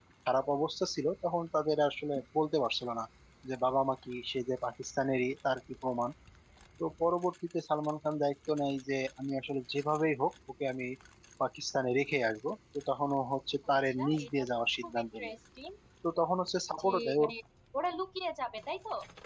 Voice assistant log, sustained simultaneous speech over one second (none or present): present